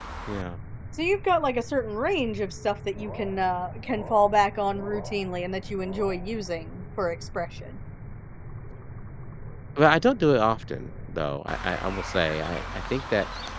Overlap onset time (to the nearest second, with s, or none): none